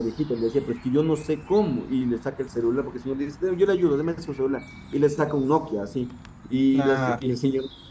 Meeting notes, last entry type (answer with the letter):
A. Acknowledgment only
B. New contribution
A